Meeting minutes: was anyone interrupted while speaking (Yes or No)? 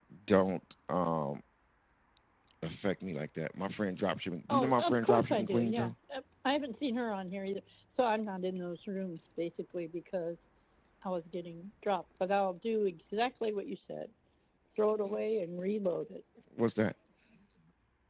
Yes